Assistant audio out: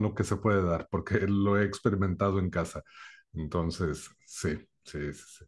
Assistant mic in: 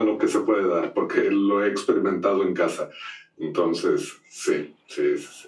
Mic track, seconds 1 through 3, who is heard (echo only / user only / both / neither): echo only